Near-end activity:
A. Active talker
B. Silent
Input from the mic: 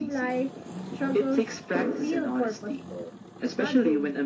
B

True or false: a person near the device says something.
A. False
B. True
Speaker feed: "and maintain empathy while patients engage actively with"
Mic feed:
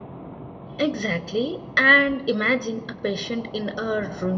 B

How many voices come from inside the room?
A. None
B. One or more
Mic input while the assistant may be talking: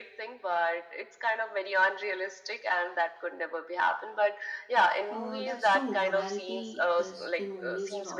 B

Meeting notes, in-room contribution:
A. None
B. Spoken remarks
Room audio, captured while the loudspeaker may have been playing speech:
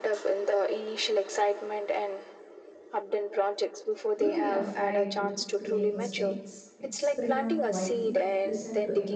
B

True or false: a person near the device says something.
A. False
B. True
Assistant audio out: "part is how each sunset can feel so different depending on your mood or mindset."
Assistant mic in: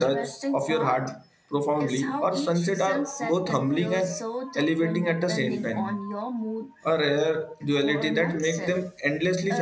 B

